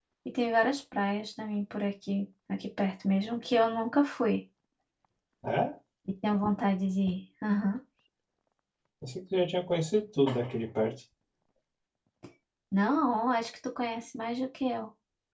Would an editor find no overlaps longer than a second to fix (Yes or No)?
Yes